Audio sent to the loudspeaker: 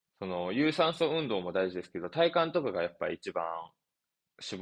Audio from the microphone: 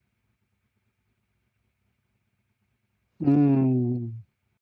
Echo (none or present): none